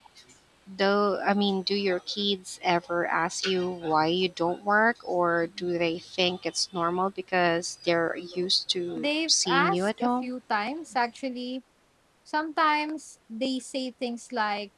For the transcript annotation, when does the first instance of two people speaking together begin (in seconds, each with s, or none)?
9.0 s